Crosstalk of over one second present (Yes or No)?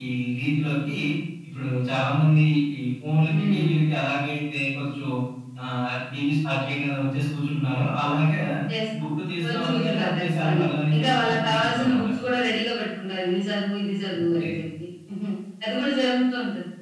Yes